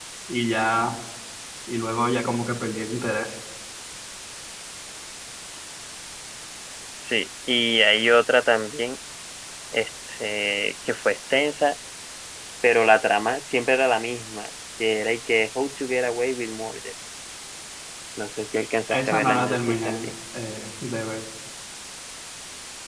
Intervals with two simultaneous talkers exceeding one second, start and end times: 18.9-20.1

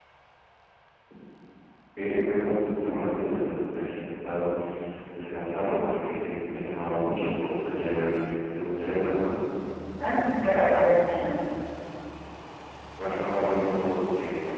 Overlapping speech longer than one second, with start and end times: none

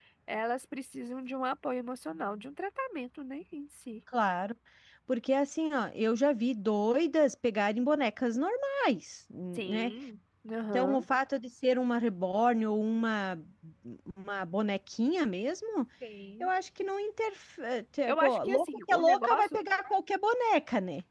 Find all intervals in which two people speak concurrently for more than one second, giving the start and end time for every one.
18.1-19.6

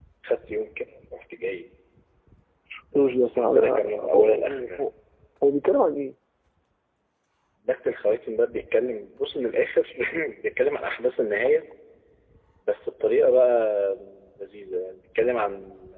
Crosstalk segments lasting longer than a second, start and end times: 3.0-4.9

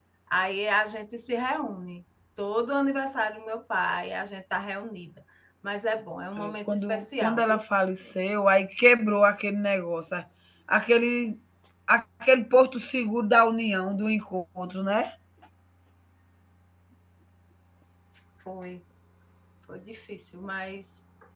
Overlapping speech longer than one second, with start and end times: 6.4-7.6

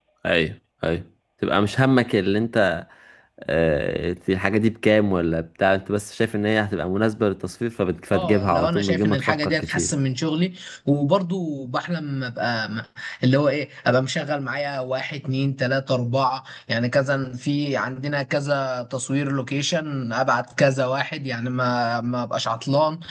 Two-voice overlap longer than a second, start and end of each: 8.1-9.9

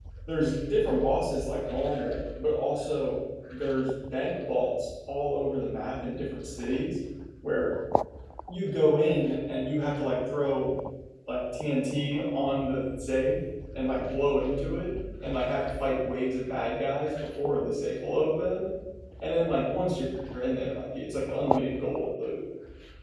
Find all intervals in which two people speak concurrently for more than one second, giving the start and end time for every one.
none

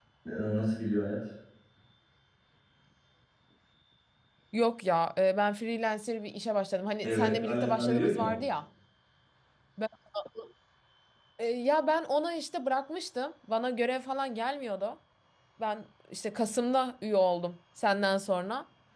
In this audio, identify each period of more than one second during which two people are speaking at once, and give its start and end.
7.0-8.4

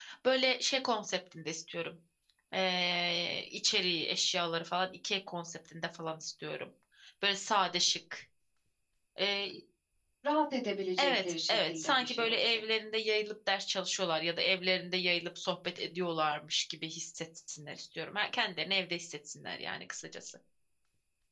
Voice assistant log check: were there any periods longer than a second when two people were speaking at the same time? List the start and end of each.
11.0-12.6

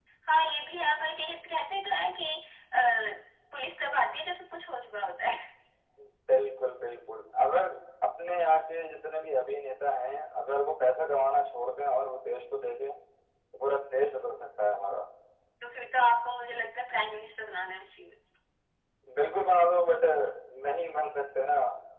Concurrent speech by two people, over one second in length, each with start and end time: none

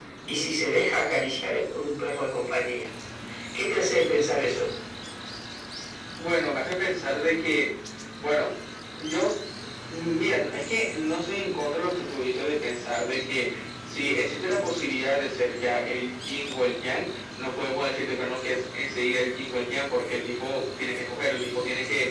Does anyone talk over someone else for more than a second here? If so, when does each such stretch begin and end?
none

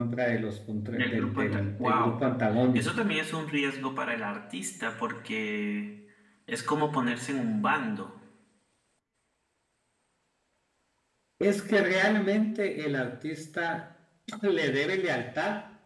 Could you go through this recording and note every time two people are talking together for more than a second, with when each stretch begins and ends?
0.9-2.2

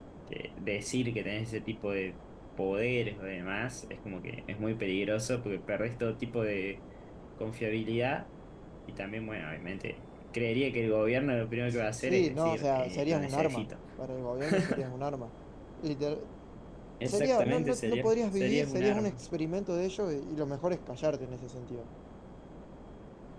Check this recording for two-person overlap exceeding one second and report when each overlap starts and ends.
12.0-13.7, 17.1-19.2

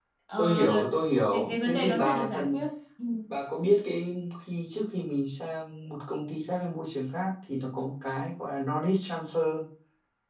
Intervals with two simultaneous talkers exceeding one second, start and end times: 1.3-2.6

